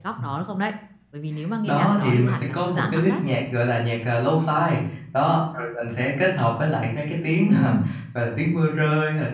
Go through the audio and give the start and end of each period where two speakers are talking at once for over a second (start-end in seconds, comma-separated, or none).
1.6-3.2